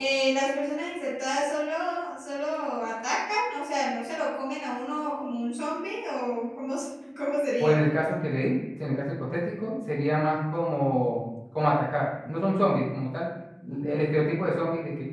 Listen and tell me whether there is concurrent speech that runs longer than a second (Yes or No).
No